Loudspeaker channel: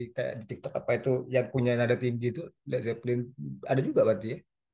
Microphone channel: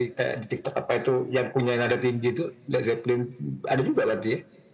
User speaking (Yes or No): No